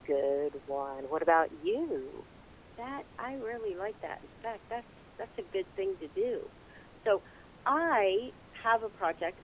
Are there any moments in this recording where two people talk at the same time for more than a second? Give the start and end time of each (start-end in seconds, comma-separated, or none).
none